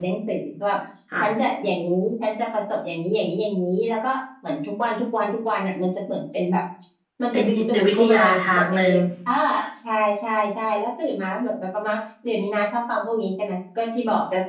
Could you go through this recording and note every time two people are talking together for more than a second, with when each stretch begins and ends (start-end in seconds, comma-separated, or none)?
7.3-8.9